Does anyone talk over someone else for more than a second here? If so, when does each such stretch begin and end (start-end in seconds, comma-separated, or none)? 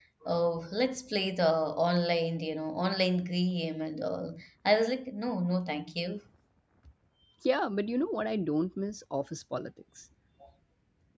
none